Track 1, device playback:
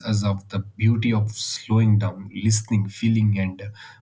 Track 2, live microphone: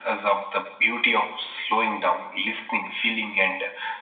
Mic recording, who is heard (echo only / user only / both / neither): echo only